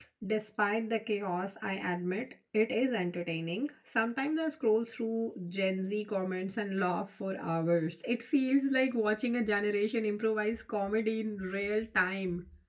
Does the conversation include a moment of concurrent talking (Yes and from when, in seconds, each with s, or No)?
No